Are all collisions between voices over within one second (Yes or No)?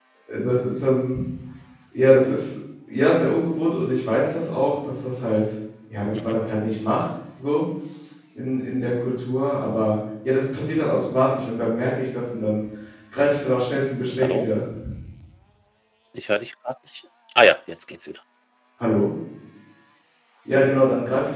Yes